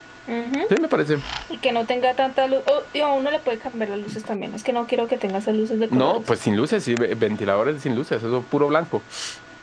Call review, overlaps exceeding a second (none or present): none